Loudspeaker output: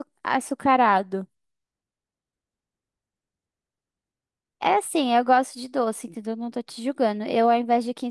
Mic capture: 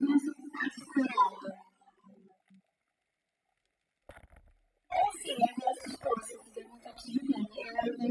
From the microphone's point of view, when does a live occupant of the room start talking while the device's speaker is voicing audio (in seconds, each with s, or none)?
none